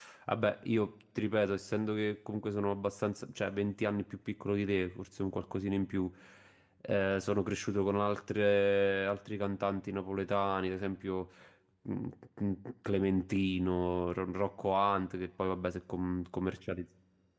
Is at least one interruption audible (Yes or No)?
No